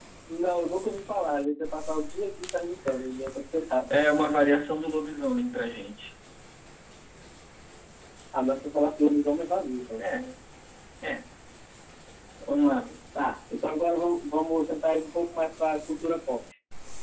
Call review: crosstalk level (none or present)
none